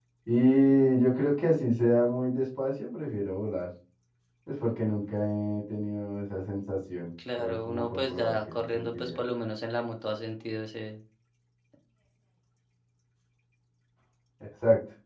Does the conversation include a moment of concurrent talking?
Yes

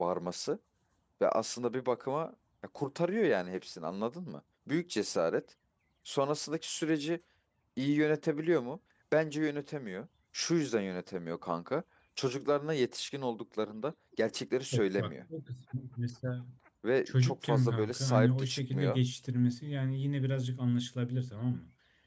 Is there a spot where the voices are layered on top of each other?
Yes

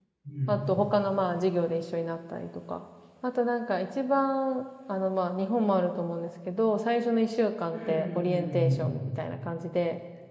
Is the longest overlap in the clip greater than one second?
Yes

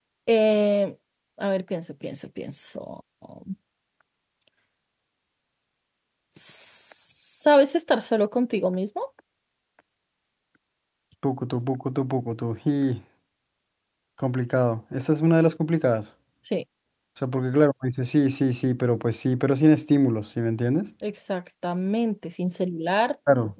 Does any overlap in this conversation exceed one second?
No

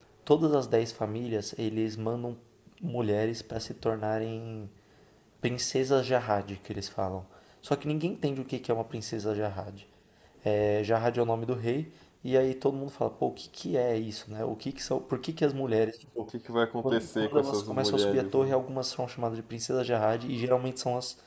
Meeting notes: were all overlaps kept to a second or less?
No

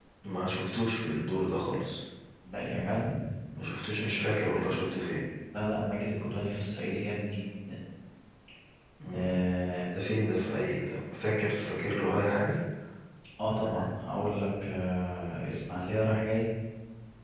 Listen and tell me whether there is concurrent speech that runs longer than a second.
No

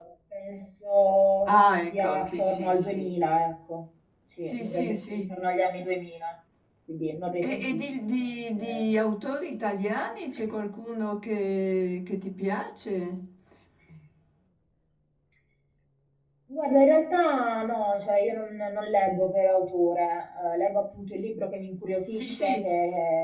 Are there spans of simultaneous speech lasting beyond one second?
Yes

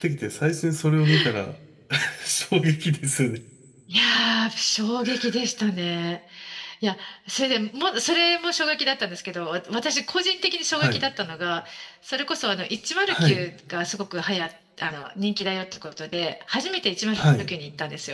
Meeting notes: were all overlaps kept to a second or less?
Yes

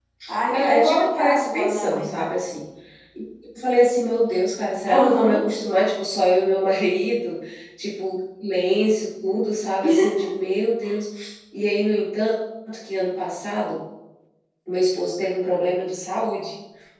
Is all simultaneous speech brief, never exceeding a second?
No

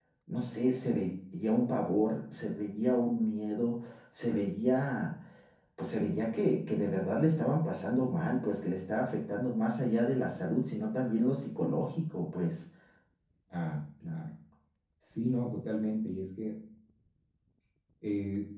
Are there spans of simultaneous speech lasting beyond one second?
No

